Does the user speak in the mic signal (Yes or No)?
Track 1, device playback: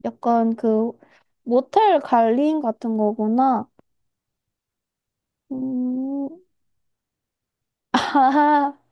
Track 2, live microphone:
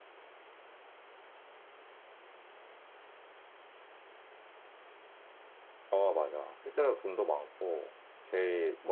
Yes